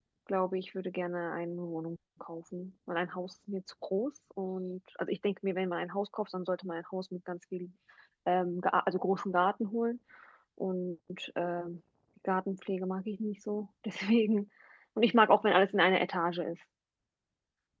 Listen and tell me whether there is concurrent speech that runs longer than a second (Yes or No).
No